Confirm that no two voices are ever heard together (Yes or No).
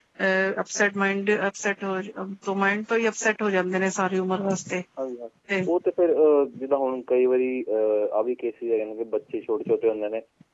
Yes